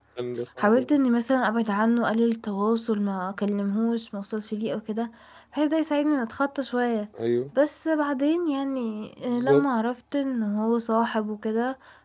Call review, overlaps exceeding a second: none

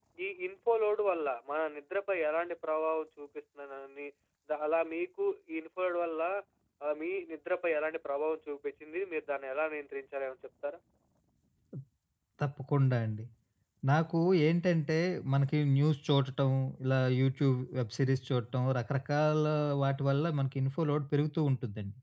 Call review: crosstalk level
none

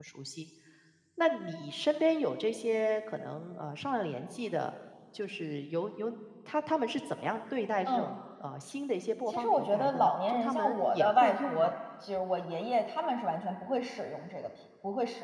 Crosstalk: present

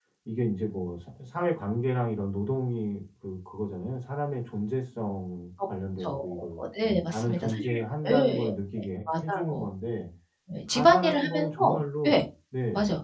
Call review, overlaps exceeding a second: present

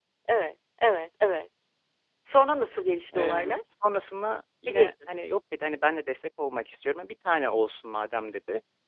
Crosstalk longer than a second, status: none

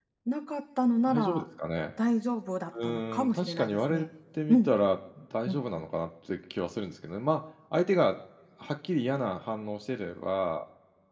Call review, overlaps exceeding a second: present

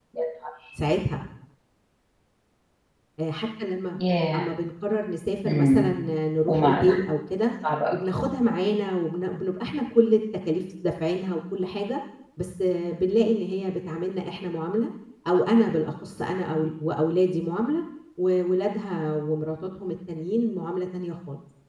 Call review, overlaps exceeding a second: none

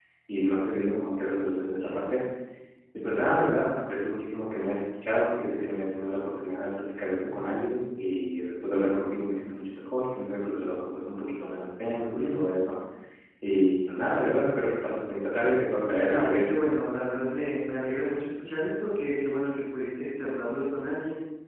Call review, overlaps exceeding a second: none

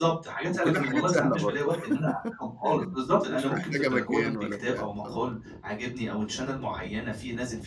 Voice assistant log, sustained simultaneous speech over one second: present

